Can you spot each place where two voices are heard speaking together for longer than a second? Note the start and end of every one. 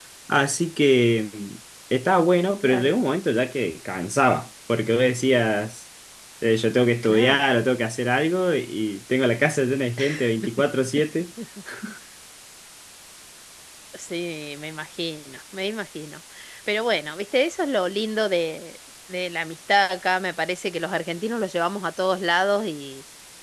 none

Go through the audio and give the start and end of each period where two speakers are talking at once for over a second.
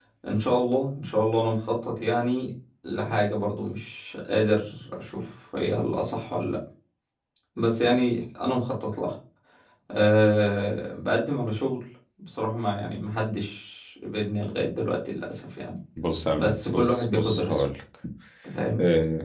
16.3-17.6

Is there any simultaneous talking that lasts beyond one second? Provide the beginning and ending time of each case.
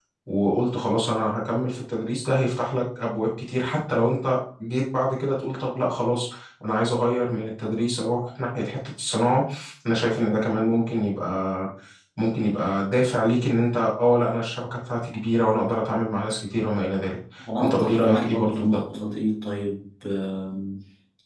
17.6-18.8

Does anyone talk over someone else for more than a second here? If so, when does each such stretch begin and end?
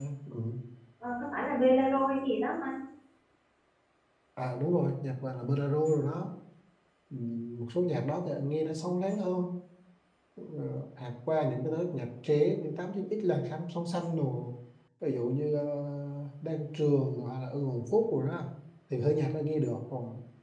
none

